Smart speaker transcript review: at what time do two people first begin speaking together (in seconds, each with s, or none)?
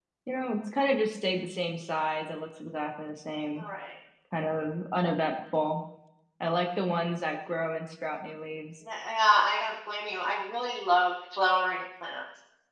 none